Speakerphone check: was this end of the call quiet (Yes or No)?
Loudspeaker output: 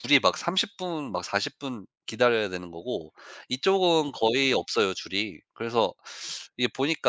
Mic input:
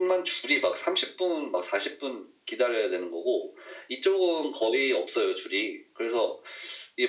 Yes